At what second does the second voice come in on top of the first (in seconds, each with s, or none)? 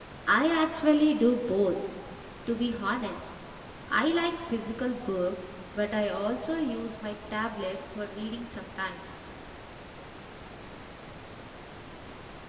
none